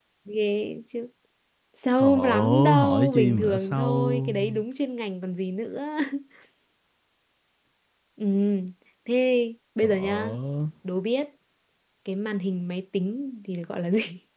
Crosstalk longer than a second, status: present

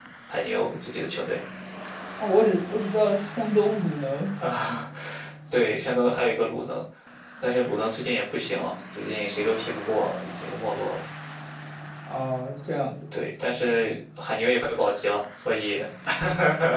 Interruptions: none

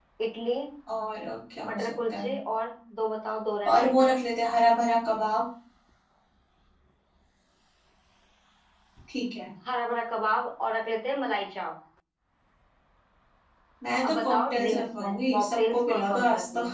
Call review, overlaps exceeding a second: present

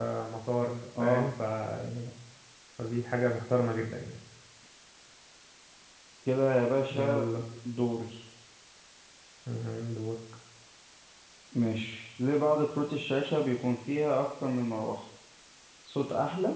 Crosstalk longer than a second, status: none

